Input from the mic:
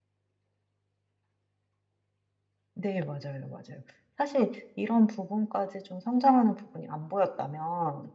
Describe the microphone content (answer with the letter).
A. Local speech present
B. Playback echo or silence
B